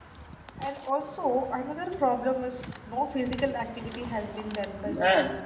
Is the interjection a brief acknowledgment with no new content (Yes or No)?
No